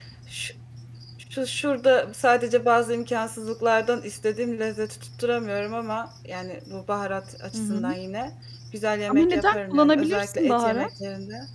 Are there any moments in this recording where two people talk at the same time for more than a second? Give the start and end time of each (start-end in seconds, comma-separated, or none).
9.1-10.9